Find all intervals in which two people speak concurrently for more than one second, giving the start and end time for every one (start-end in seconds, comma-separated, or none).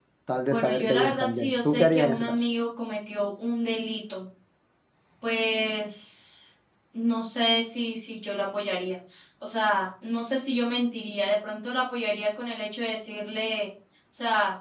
0.5-2.3